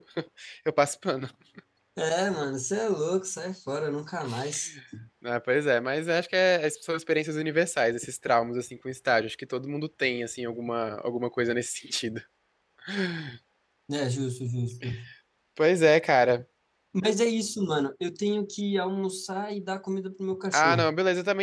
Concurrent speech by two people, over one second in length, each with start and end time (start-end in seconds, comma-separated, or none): none